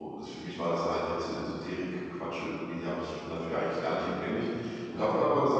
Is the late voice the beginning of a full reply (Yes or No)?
No